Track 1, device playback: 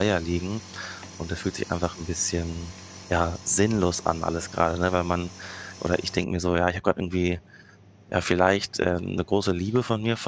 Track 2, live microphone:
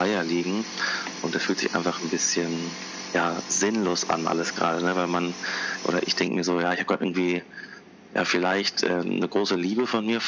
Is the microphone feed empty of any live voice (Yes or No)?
Yes